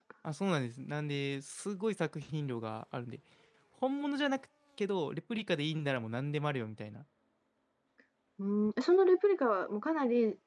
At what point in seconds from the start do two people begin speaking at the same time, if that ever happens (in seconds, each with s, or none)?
none